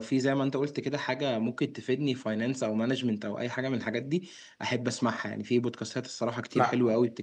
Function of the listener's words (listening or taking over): listening